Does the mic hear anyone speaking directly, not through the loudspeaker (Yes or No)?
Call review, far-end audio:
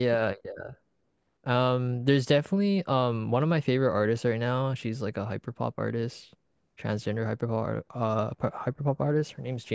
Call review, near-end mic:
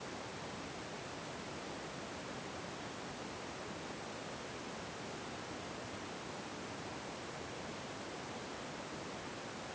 No